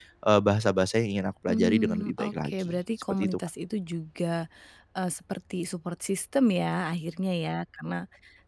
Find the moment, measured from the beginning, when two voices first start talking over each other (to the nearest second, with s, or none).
1 s